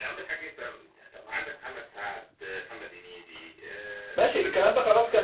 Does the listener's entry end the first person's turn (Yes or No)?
Yes